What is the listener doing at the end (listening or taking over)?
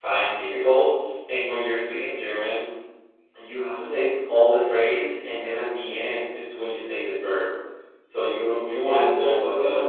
taking over